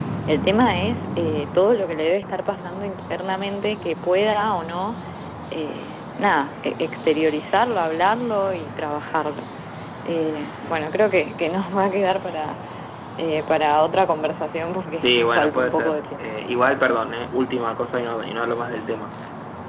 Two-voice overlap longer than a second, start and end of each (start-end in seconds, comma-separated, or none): 14.9-16.3